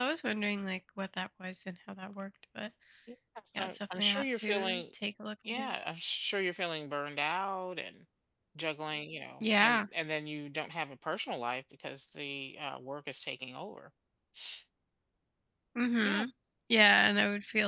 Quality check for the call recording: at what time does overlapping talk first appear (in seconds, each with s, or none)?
3.5 s